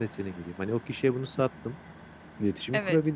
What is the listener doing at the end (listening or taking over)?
listening